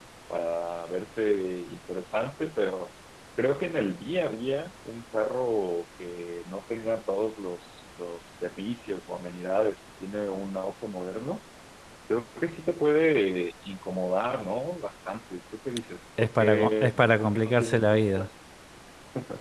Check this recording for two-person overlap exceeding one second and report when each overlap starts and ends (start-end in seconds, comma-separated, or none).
16.2-18.3